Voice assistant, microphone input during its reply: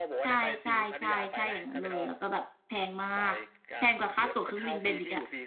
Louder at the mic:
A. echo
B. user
B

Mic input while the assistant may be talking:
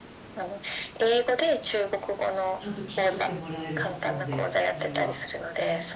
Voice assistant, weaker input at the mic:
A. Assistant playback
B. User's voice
B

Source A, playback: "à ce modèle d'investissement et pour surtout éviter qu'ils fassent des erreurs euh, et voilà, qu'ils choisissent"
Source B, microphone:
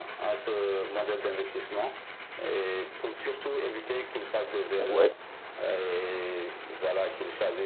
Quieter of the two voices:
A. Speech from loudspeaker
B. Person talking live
A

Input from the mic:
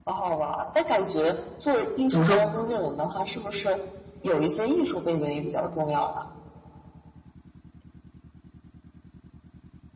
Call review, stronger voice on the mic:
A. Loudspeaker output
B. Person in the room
B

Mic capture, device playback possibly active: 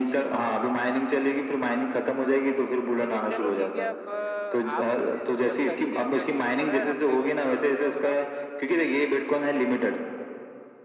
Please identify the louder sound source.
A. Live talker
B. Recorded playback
B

